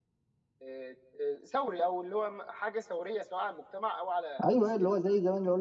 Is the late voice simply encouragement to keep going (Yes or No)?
No